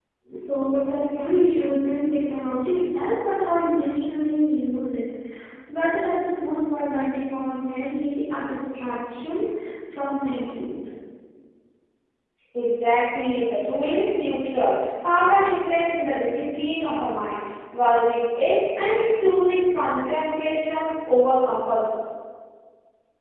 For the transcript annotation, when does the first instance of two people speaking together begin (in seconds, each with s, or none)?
none